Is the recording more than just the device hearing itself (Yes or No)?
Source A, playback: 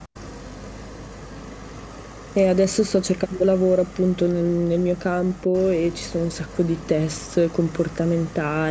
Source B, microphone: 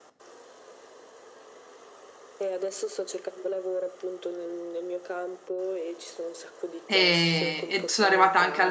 Yes